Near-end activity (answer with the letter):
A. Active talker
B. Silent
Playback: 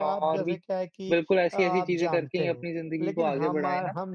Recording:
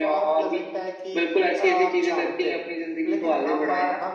B